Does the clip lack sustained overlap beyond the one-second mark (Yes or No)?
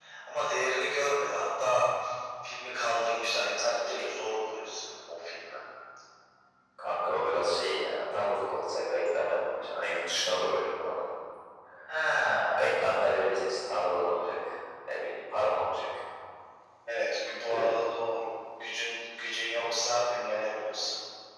Yes